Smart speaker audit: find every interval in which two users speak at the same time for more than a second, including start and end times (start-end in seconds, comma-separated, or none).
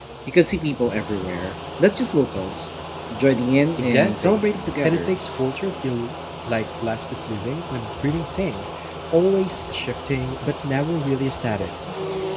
3.8-5.2